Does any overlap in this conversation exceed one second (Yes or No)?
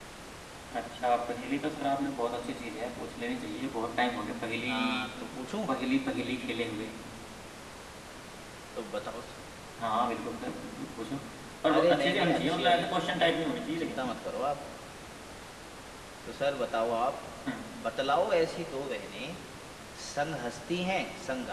Yes